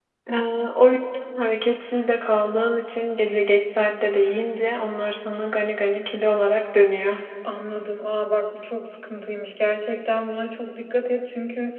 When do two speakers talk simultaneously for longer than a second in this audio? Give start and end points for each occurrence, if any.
none

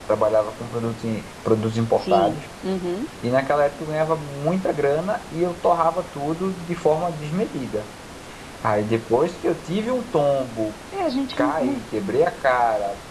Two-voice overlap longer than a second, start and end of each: none

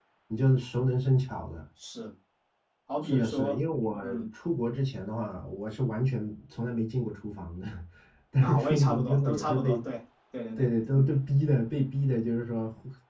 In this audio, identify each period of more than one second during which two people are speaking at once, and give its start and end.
8.4-9.8

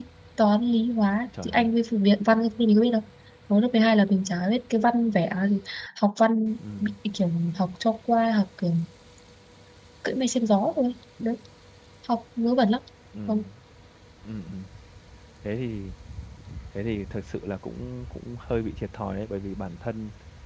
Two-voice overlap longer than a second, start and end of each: none

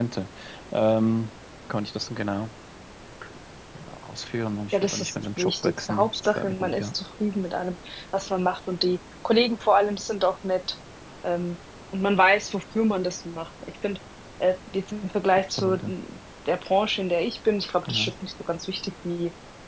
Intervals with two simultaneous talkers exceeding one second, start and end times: 4.7-6.9

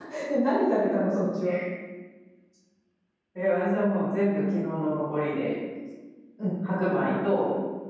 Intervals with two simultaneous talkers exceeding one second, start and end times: none

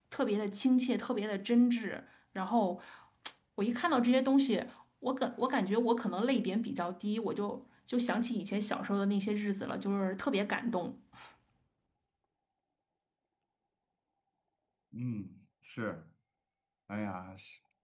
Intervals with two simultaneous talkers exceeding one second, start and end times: none

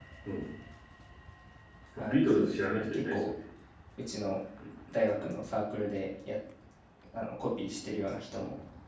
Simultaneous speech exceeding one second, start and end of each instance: 2.1-3.3

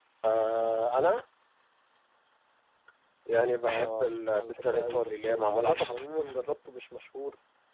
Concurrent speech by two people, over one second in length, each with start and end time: 3.7-6.0

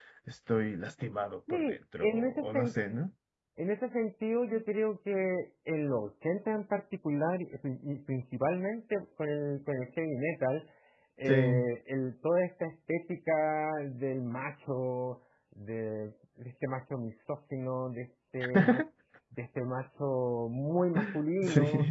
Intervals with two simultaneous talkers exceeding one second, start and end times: 1.5-2.7

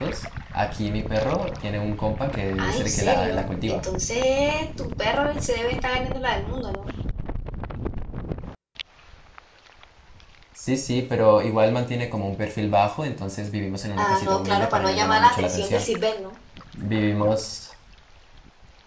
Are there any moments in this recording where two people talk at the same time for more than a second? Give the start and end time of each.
2.6-3.8, 14.0-15.9

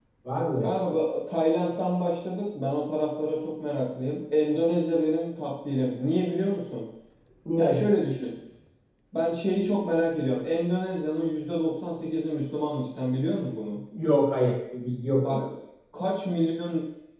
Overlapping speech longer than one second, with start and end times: none

